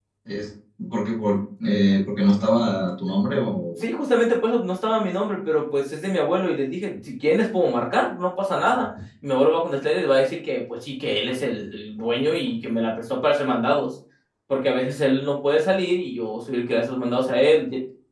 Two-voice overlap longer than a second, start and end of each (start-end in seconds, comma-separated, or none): none